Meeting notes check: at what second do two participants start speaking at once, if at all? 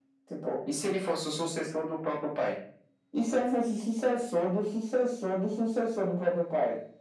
none

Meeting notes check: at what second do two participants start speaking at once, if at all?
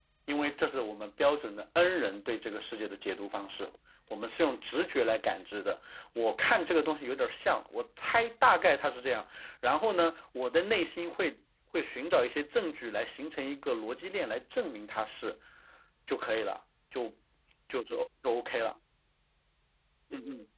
none

